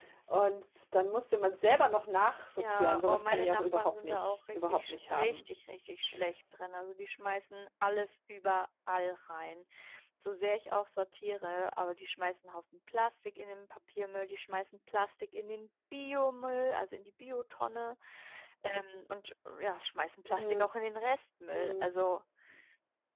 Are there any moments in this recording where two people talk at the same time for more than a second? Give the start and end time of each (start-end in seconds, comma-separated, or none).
2.6-5.4